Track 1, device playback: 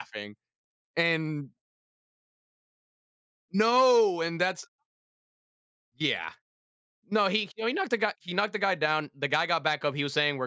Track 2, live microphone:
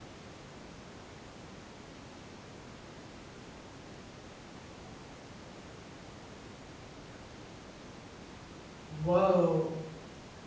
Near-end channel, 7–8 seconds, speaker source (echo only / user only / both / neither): neither